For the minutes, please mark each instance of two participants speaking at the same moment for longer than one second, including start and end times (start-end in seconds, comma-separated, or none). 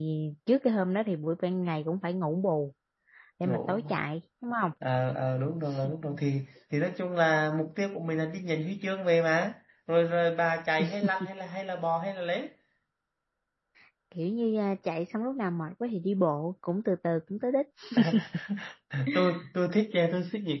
none